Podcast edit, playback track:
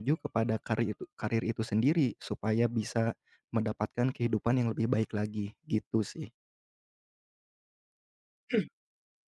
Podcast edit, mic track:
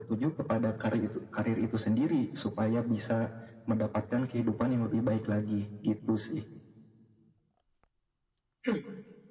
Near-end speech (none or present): none